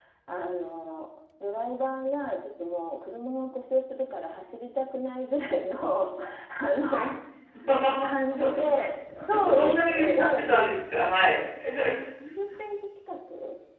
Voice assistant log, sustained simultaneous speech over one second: present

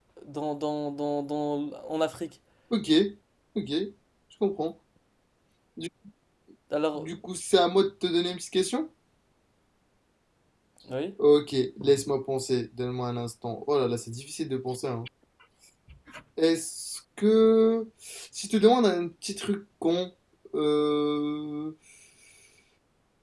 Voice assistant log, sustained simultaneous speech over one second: none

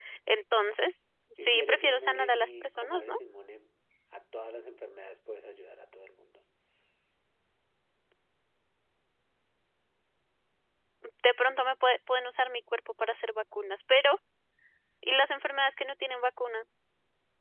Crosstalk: present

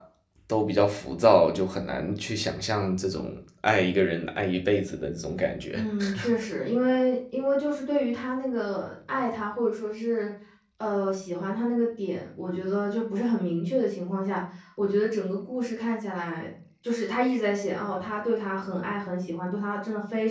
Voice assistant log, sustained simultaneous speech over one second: none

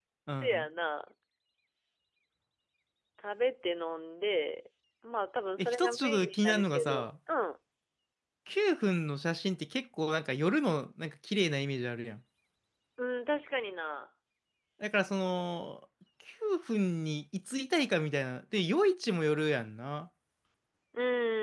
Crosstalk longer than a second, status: present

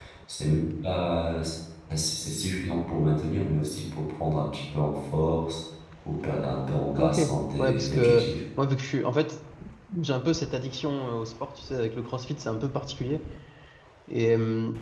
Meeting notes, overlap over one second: present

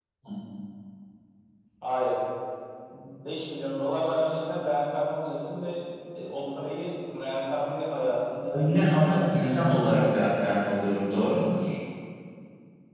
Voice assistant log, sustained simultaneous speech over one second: present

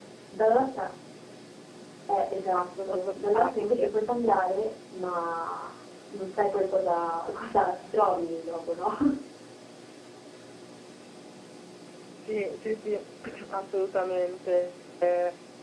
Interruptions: present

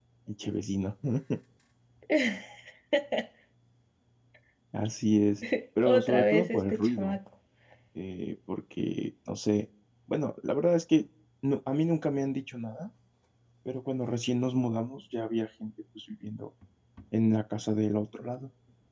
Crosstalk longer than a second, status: present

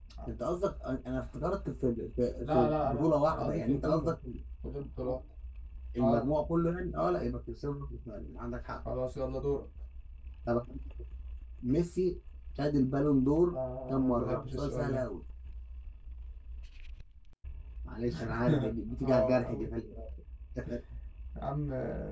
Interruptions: present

